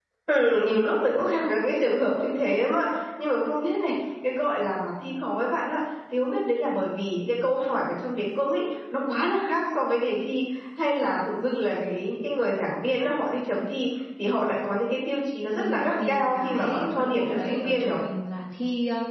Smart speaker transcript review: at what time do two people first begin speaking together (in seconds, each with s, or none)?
15.6 s